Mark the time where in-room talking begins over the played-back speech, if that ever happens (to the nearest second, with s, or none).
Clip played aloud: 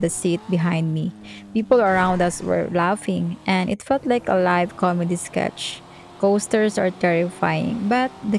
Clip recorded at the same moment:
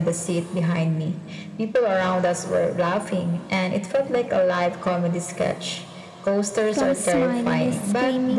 7 s